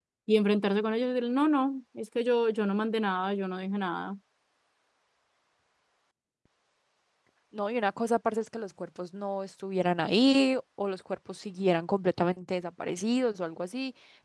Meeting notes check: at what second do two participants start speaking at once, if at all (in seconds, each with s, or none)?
none